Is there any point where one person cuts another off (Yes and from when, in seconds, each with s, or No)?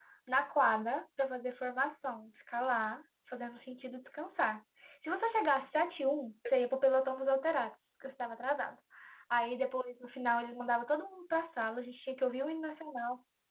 No